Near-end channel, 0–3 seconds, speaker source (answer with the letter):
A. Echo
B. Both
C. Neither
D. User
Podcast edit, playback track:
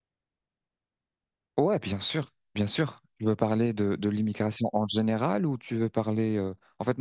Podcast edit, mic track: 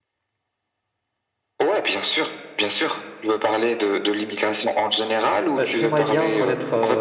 A